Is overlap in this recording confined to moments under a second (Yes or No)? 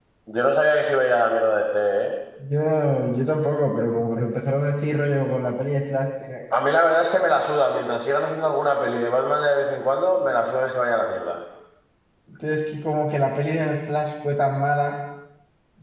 Yes